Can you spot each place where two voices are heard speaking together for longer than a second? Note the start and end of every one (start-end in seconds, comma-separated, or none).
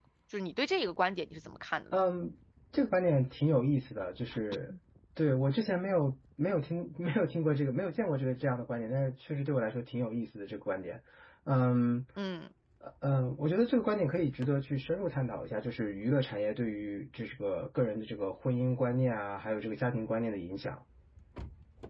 none